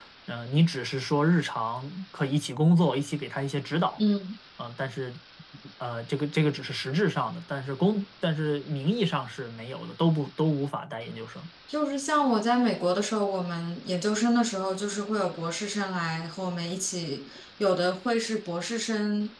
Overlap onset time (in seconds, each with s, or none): none